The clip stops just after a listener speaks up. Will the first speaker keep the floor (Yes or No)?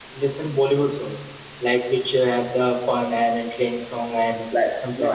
No